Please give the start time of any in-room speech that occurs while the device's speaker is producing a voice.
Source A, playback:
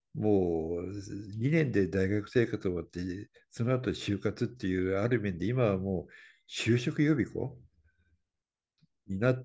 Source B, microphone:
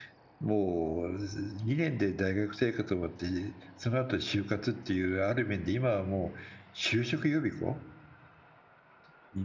none

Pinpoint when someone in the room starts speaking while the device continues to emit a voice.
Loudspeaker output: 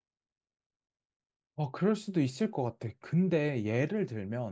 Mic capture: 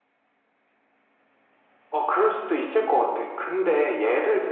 none

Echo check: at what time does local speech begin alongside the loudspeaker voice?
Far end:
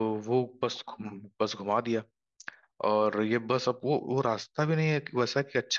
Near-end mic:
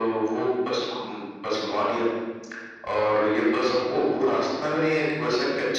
none

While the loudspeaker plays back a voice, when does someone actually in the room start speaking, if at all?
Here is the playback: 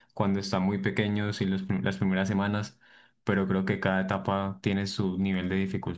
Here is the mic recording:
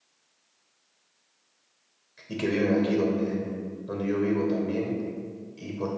2 s

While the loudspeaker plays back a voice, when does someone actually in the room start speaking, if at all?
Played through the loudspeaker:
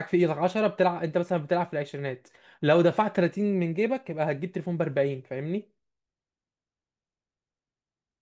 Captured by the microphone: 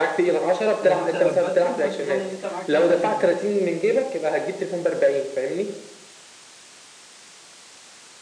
1 s

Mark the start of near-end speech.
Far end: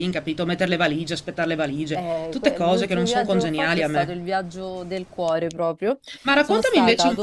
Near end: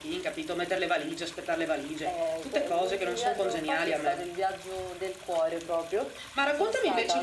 none

